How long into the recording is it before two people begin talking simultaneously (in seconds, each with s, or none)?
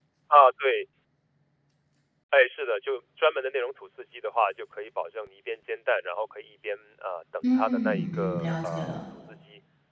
7.4 s